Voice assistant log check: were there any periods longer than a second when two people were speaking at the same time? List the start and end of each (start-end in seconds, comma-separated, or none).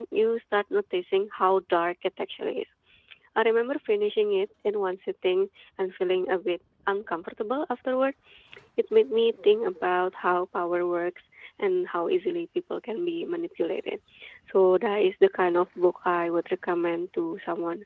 none